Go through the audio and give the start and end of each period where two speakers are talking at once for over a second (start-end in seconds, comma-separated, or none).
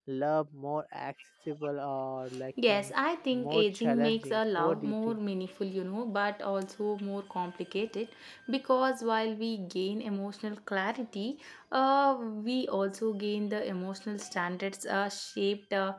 3.3-5.2